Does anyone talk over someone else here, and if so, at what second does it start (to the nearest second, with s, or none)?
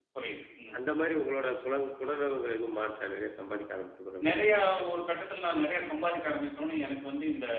none